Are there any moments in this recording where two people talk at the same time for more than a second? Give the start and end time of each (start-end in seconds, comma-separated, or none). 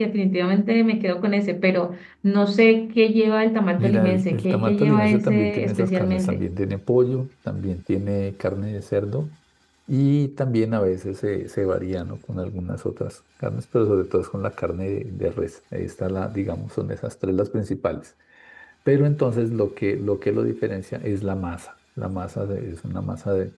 3.8-6.5